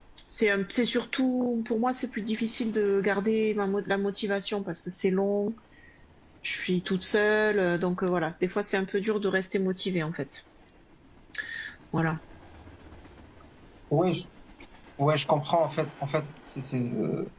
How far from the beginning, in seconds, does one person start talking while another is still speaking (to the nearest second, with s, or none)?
none